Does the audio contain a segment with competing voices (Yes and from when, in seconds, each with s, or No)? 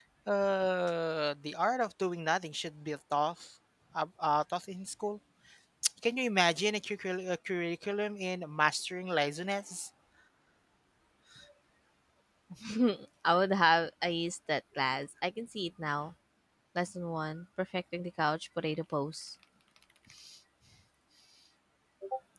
No